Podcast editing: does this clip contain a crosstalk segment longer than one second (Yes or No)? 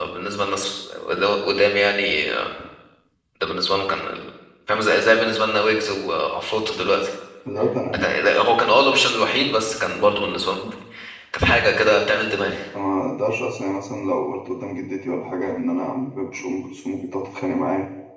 No